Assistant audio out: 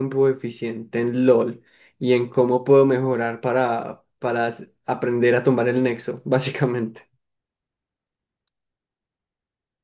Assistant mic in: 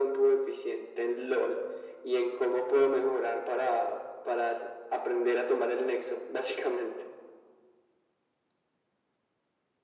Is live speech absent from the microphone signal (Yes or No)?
Yes